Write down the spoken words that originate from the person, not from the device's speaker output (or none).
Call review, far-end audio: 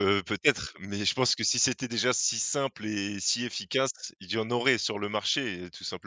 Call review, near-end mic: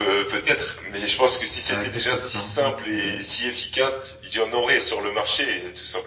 Heu, qu'est-ce que tu en penses, heu?